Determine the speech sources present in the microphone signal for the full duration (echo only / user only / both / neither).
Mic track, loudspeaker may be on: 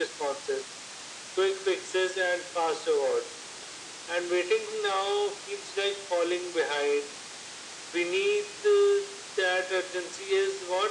echo only